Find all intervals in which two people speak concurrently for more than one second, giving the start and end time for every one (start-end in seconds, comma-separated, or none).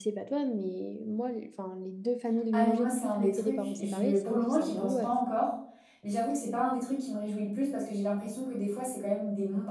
2.5-5.1